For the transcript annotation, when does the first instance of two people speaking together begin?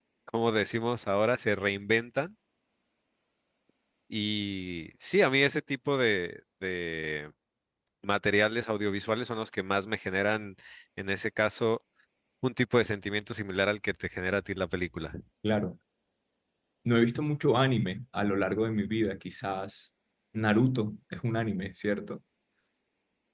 none

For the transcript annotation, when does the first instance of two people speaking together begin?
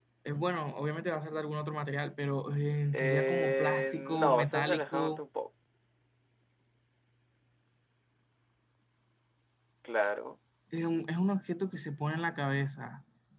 2.9 s

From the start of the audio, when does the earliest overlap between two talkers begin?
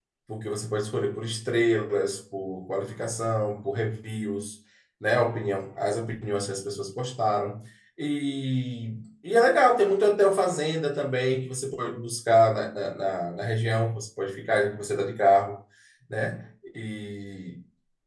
none

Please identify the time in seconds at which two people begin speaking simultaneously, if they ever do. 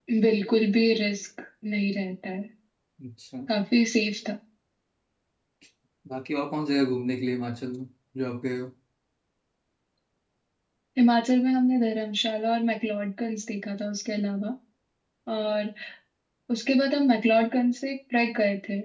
none

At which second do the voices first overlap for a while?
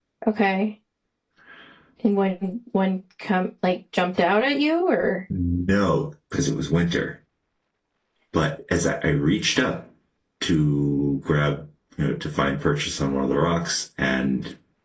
none

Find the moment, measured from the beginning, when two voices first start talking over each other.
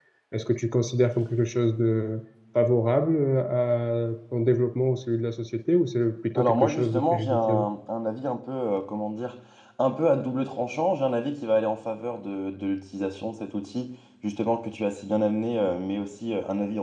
6.3 s

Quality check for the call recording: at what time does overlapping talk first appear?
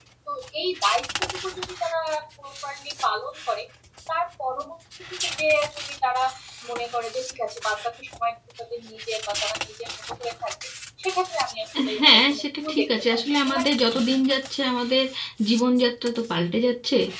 11.8 s

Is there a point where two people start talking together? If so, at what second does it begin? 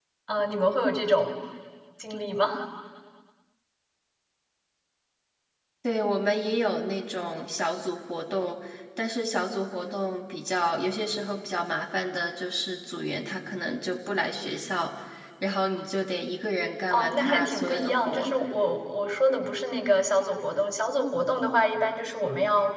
16.9 s

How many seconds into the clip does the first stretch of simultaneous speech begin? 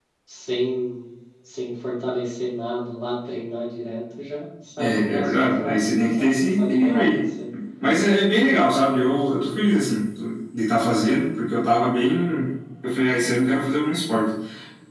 4.8 s

